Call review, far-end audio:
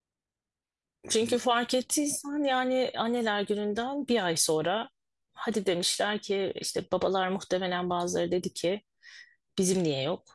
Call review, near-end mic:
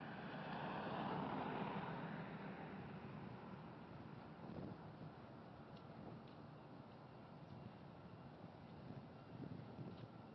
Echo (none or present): none